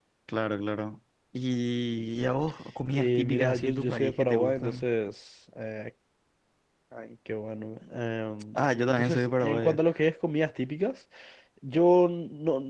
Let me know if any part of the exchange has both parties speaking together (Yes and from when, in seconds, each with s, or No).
Yes, from 2.9 s